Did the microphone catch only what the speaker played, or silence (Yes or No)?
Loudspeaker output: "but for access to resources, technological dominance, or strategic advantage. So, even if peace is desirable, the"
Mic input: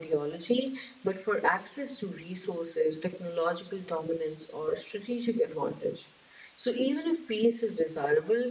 Yes